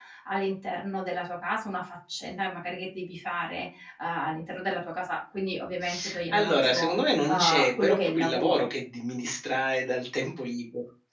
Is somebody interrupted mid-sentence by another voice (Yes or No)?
Yes